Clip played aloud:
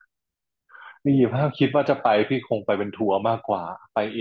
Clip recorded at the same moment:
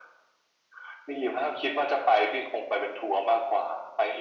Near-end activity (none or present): none